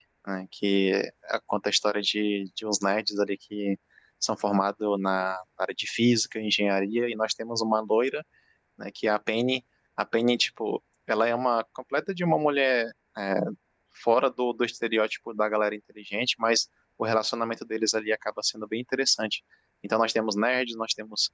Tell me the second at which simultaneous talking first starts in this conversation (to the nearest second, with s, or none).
none